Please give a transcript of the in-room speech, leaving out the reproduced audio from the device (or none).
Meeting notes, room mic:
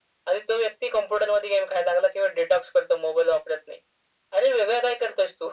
none